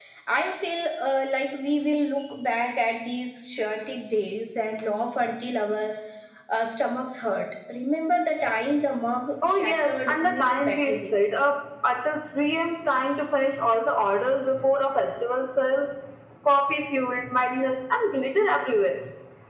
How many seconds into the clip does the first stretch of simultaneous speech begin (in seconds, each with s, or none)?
9.4 s